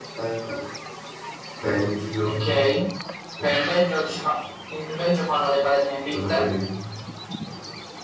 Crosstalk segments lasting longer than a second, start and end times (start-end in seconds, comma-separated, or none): none